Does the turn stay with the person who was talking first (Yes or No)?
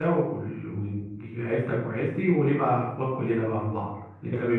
No